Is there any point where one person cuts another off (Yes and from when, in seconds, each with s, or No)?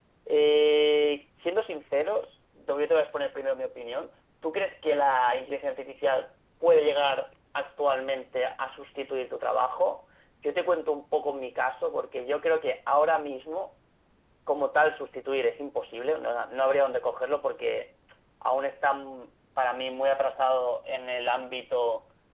No